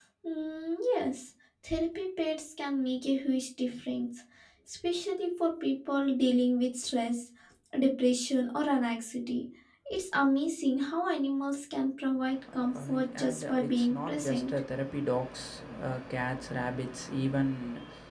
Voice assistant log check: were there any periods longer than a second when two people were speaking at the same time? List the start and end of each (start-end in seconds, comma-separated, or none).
12.8-14.6